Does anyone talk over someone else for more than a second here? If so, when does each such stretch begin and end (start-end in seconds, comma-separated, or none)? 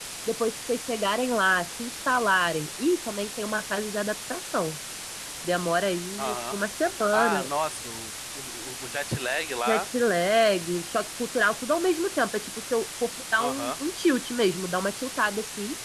none